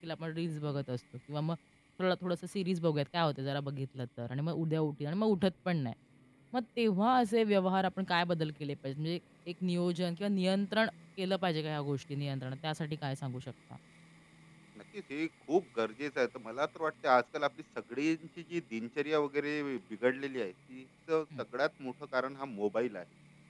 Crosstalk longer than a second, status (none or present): none